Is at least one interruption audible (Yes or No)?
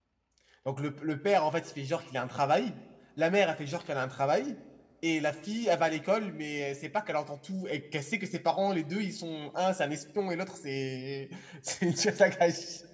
No